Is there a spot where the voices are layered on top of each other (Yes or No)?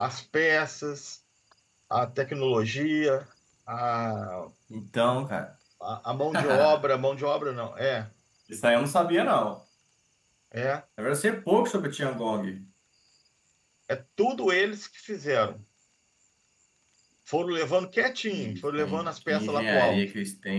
Yes